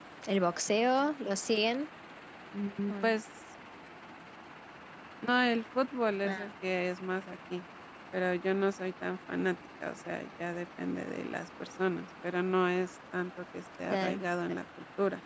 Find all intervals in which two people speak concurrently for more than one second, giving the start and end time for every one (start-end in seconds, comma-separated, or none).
none